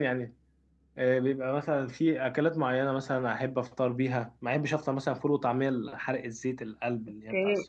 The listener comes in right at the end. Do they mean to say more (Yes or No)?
Yes